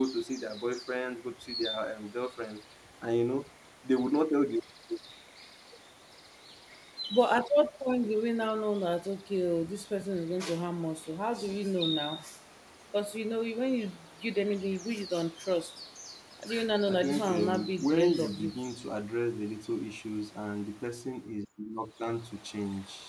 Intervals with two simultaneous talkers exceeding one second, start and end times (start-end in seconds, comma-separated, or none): 16.9-18.5